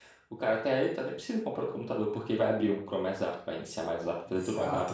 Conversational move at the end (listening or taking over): taking over